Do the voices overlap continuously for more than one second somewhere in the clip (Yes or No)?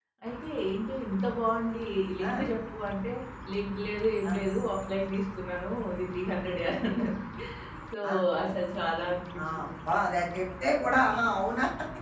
No